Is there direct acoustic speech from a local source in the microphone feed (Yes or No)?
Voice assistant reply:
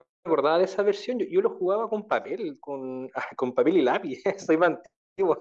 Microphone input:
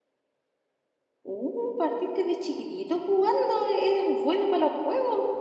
Yes